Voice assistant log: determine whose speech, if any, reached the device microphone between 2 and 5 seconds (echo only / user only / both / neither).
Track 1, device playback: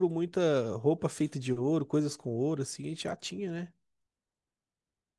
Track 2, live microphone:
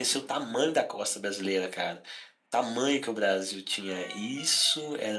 user only